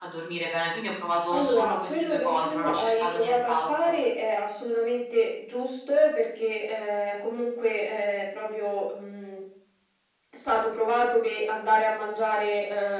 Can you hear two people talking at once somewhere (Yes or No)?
Yes